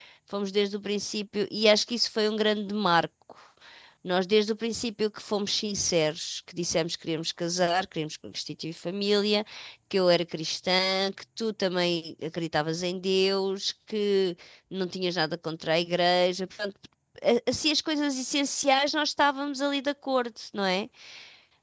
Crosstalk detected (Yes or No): No